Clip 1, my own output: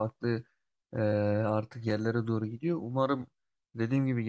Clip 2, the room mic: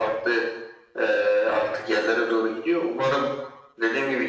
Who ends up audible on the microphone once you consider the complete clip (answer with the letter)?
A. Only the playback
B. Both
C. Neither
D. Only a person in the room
A